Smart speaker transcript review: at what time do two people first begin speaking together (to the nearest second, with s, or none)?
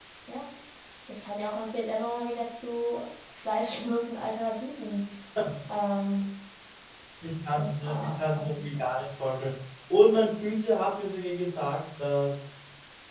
8 s